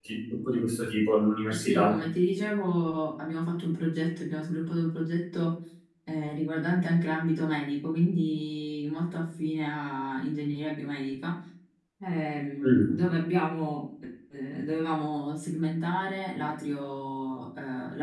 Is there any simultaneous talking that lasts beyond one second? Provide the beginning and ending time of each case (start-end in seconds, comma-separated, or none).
none